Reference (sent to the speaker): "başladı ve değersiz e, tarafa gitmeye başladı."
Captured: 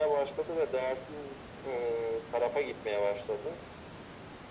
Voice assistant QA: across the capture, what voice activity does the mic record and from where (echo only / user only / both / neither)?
echo only